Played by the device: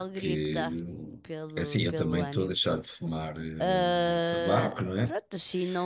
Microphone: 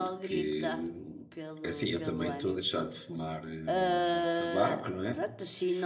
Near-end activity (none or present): none